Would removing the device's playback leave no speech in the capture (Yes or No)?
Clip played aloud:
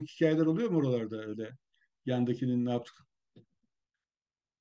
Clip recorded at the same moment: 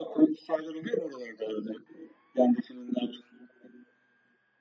Yes